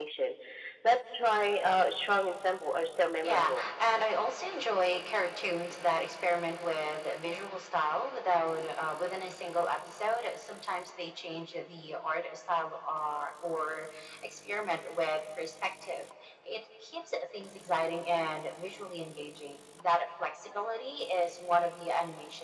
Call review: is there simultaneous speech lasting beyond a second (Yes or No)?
No